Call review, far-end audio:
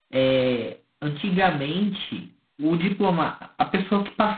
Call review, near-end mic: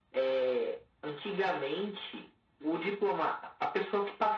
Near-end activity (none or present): none